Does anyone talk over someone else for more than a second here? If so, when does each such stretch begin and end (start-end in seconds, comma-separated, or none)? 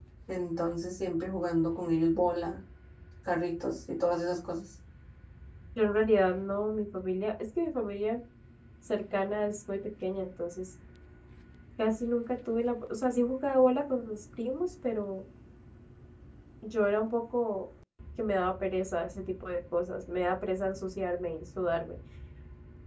none